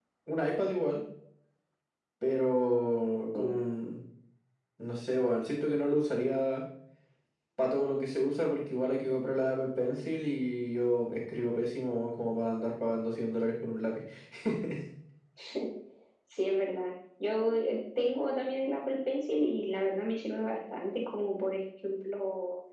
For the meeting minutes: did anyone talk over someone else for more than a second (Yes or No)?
No